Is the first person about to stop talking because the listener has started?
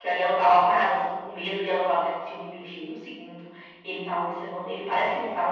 No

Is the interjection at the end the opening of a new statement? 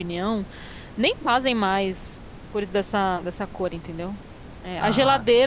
No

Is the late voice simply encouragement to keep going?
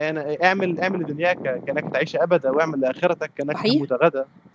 Yes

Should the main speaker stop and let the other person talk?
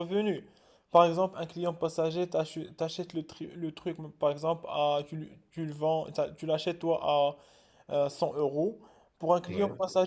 No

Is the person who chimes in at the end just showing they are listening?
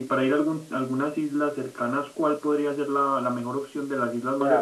No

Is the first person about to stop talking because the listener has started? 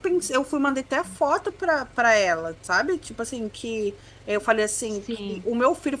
No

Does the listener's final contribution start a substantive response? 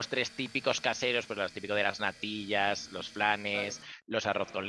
No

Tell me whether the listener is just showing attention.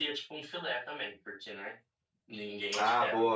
No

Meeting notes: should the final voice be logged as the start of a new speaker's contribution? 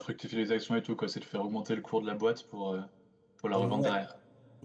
Yes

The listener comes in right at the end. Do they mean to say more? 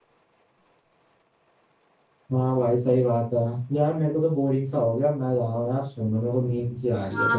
Yes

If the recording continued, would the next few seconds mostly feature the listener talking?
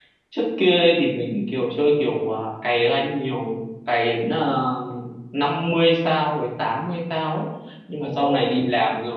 No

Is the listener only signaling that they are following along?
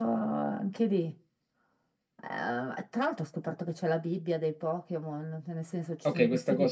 No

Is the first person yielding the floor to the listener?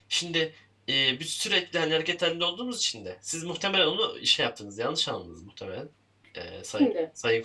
No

